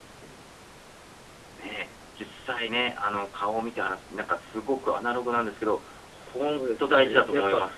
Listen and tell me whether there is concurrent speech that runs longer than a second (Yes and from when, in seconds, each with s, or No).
Yes, from 6.4 s